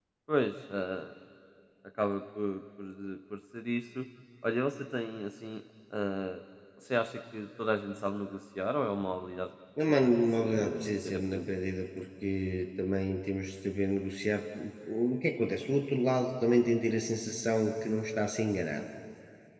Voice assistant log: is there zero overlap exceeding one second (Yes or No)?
No